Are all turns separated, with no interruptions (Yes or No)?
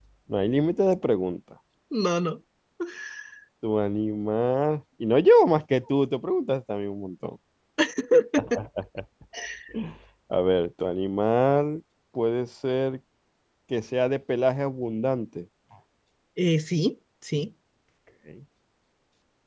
Yes